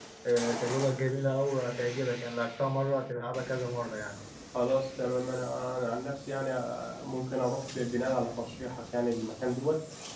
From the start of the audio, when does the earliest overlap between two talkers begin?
none

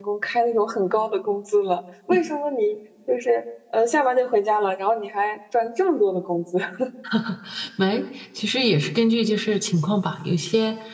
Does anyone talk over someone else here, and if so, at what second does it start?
none

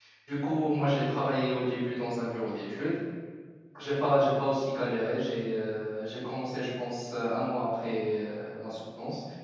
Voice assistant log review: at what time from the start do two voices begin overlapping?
none

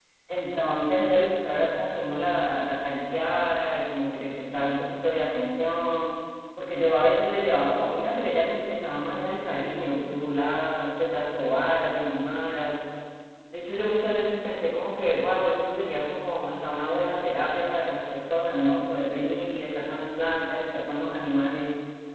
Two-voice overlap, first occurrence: none

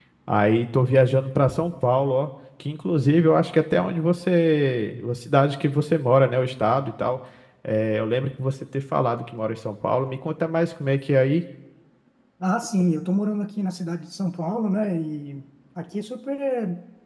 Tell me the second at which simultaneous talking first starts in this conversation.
none

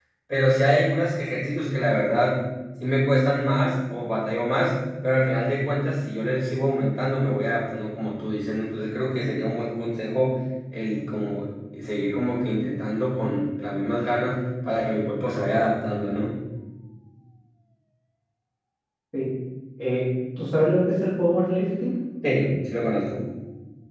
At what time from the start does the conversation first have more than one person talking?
none

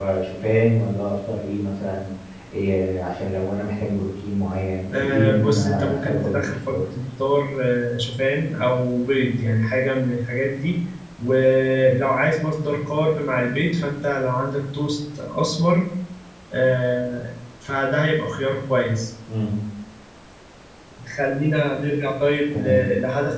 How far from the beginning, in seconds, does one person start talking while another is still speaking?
5.0 s

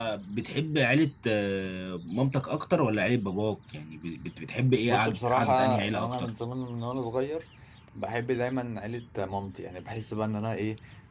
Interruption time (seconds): 4.8 s

